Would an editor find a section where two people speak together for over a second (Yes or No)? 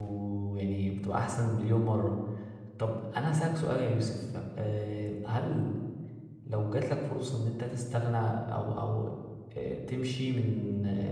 No